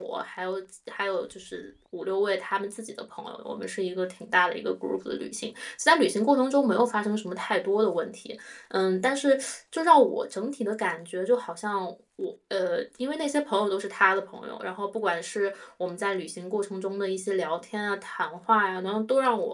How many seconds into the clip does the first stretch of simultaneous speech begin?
none

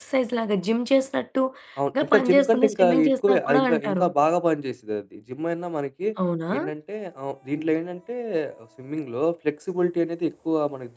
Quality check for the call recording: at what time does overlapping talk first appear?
1.8 s

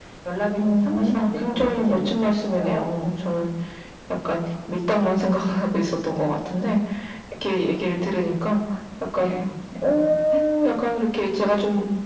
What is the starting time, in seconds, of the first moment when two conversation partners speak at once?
0.6 s

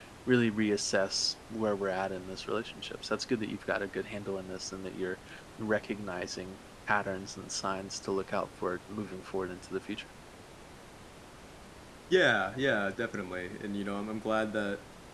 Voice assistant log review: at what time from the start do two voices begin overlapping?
none

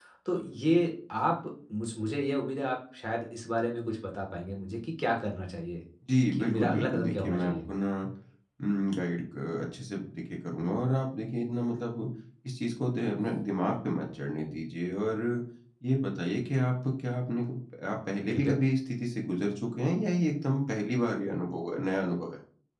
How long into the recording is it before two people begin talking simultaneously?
6.3 s

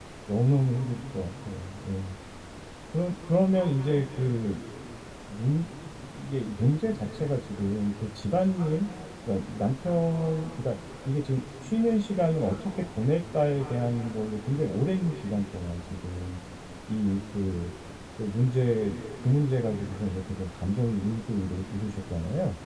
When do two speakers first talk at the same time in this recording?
none

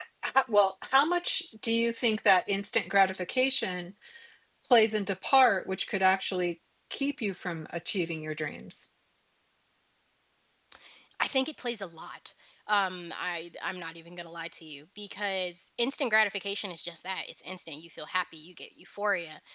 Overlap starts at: none

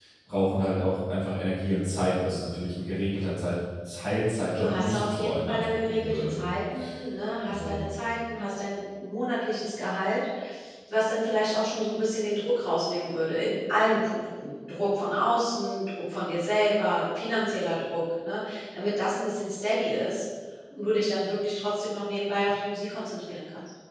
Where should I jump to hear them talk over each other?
4.5 s

